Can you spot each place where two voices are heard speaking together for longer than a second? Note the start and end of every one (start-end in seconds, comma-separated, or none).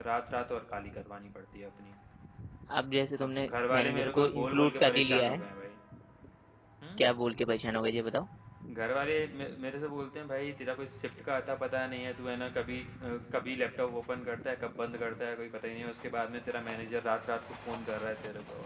3.2-5.4